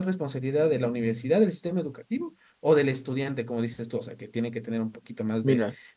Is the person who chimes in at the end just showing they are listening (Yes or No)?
No